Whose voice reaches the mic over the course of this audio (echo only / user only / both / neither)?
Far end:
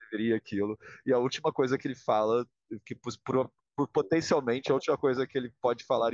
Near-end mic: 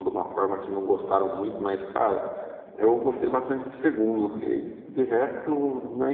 user only